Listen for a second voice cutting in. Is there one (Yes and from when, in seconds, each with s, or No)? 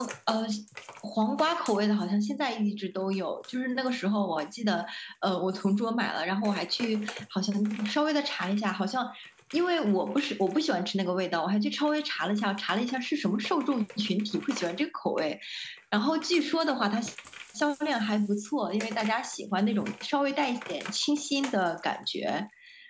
No